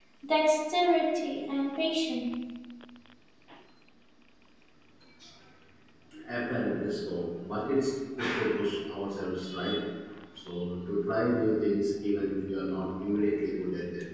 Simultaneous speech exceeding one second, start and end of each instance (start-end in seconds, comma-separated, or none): none